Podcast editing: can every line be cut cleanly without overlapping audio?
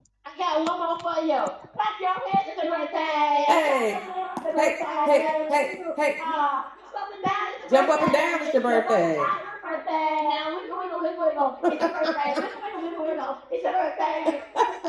No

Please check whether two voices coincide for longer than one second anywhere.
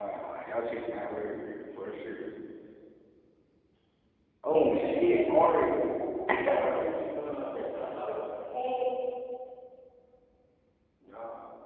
Yes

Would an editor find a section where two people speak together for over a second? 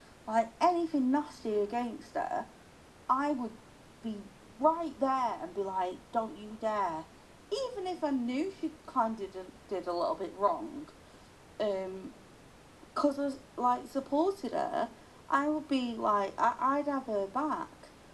No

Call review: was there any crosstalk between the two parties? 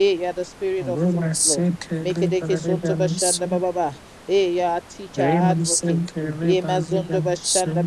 Yes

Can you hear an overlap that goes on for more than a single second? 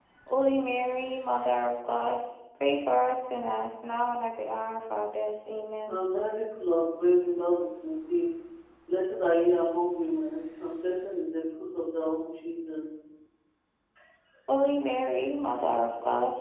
No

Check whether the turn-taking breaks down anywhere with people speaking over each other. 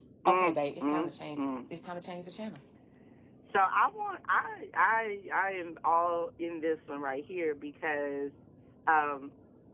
Yes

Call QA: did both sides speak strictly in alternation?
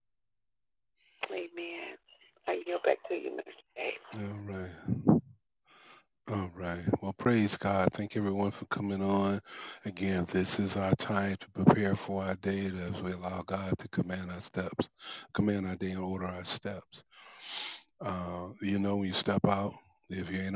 Yes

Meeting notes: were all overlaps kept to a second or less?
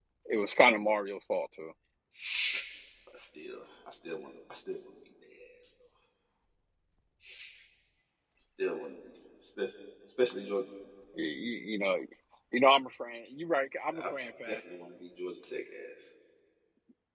Yes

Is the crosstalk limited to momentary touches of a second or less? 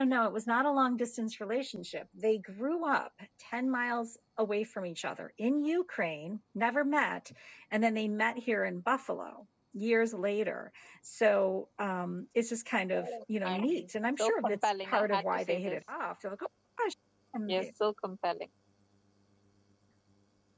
No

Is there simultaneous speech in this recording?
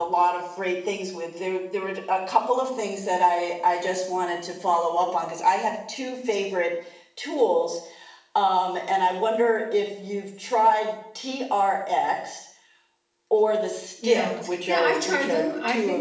Yes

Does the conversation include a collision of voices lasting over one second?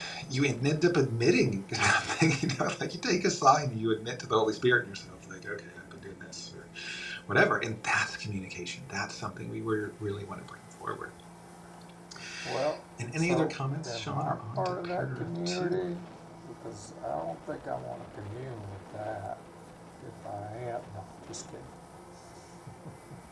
Yes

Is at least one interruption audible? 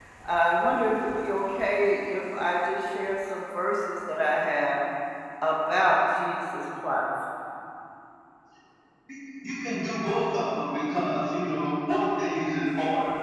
No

